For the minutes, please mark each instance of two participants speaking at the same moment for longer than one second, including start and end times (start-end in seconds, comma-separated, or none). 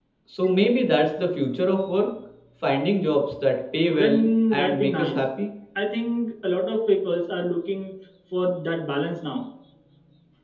3.9-5.2